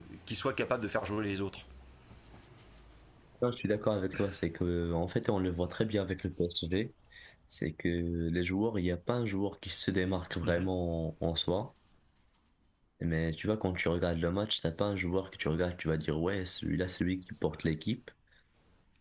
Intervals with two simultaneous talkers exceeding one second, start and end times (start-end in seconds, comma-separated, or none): none